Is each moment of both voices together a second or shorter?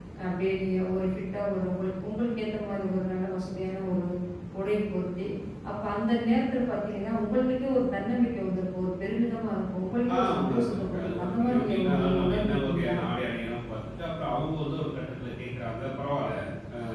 No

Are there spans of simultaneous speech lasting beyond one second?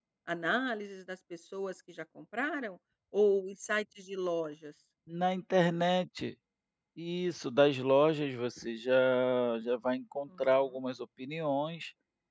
No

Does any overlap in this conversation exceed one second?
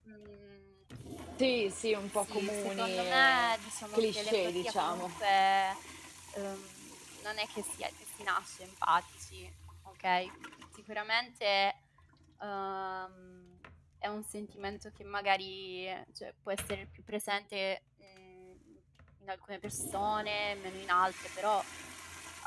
Yes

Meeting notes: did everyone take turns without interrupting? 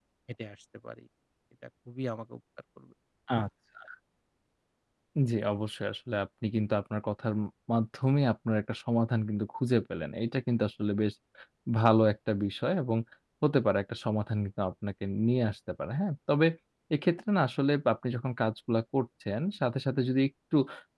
Yes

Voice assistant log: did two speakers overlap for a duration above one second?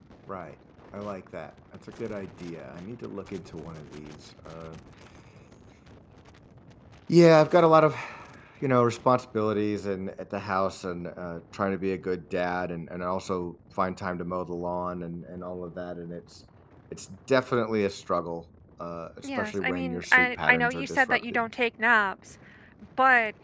Yes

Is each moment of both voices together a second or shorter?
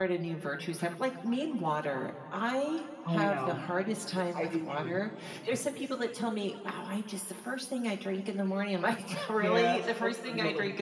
No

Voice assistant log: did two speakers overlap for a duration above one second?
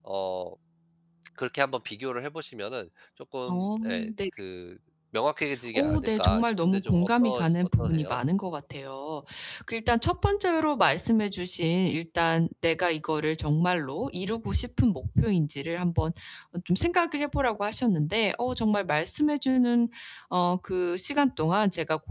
Yes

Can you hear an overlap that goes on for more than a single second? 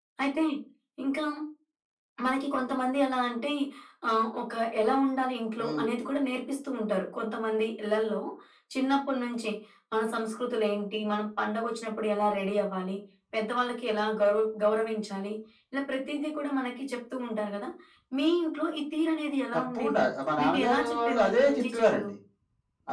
Yes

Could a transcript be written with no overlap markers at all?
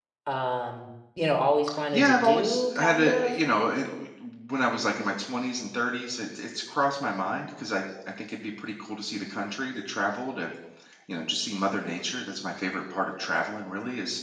No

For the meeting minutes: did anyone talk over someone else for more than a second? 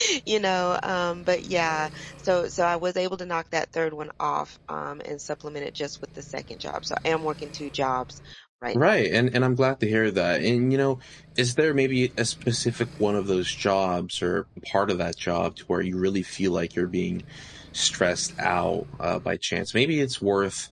No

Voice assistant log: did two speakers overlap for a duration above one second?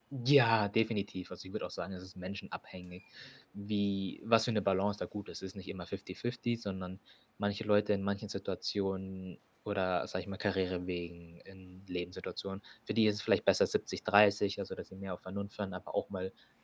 No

